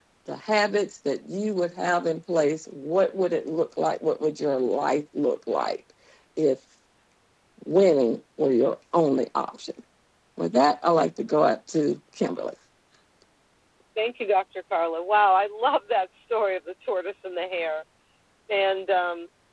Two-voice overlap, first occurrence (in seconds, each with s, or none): none